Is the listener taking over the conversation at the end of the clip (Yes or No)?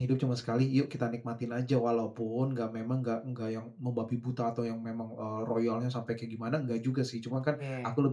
No